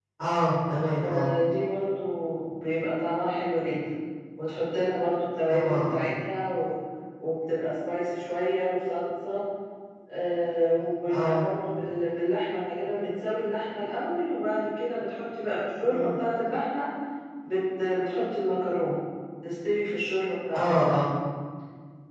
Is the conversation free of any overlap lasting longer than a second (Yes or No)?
Yes